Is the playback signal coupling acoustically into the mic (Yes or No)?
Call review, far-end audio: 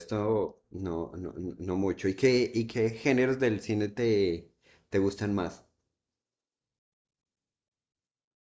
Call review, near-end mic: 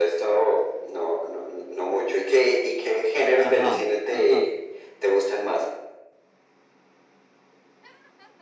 Yes